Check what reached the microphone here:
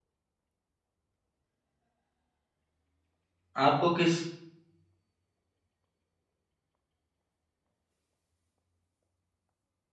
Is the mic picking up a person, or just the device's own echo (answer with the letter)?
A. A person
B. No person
A